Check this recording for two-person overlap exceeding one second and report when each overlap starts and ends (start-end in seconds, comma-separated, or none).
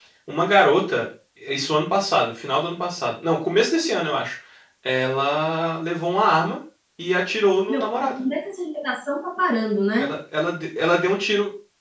none